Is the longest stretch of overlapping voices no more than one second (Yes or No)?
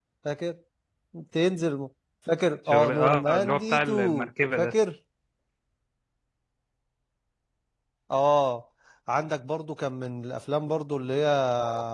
No